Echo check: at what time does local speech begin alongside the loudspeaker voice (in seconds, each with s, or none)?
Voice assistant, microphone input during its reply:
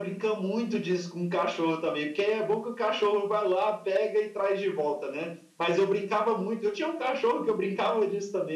none